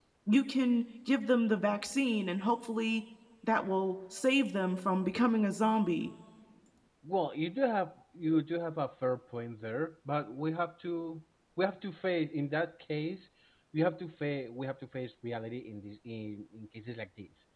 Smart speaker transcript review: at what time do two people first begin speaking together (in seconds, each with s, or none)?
none